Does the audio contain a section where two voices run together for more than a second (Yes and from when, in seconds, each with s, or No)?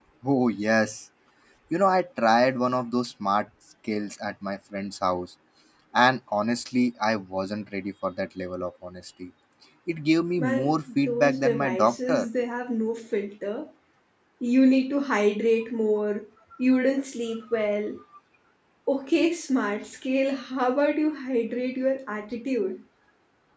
Yes, from 10.4 s